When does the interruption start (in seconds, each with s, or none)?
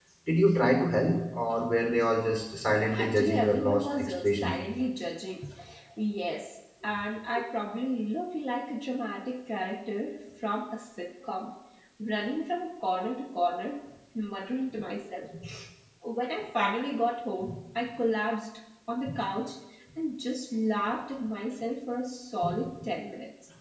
2.9 s